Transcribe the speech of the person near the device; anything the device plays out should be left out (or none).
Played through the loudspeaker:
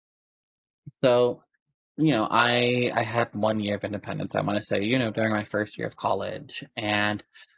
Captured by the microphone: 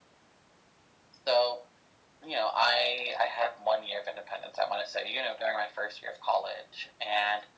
none